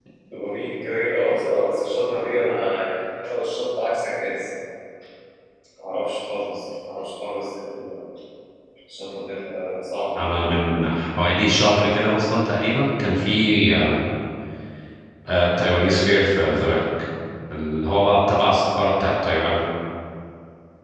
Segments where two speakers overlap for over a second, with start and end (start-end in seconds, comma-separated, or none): none